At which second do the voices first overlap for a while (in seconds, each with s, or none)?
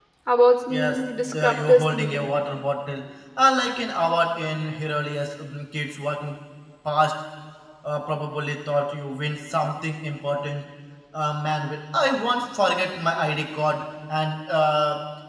0.7 s